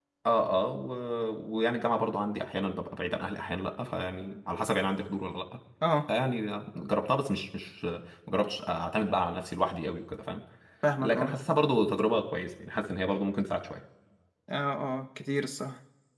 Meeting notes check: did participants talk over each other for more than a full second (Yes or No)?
No